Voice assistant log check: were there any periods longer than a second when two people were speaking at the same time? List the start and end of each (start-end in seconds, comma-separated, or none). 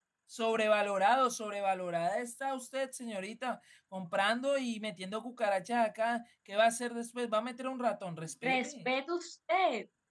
none